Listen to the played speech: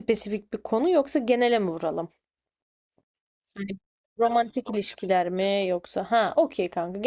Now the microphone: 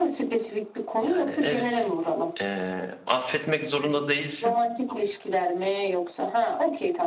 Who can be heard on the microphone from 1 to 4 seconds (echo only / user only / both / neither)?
both